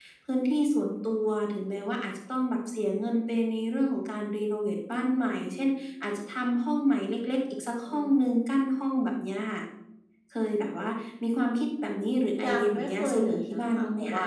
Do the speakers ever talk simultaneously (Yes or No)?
Yes